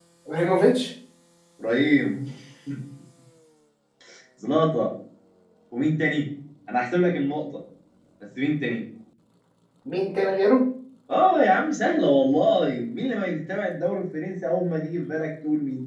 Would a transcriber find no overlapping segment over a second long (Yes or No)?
Yes